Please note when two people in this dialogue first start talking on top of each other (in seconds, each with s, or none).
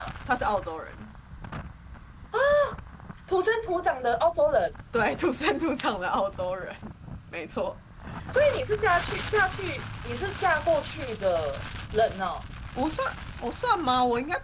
none